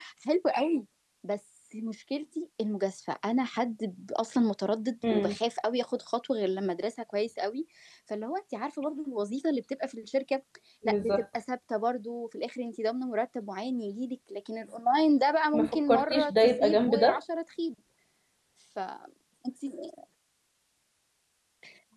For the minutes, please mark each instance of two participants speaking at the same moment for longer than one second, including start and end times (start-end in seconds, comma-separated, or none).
15.5-17.2